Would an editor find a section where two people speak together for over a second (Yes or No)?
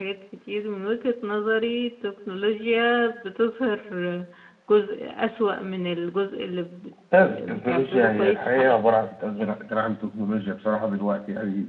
Yes